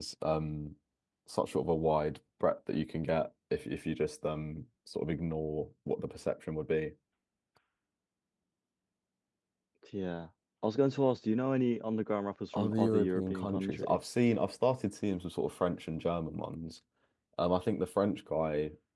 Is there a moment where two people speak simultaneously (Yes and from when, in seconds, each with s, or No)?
Yes, from 12.5 s